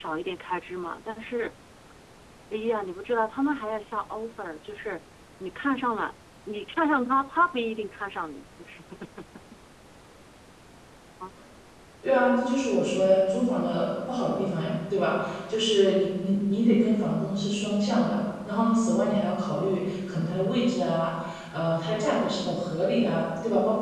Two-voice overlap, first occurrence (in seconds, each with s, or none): none